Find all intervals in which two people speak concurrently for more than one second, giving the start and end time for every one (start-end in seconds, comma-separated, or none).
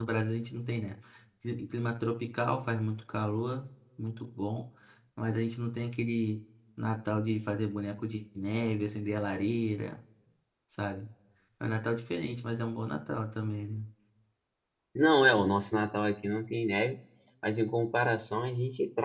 none